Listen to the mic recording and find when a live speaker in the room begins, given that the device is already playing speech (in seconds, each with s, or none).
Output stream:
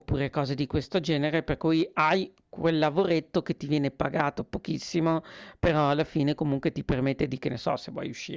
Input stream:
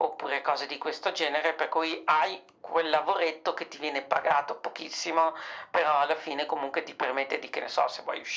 none